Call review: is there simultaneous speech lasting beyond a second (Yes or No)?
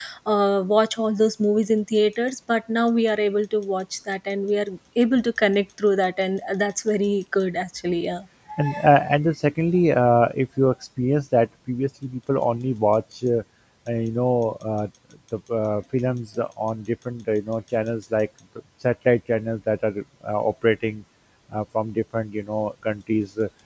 No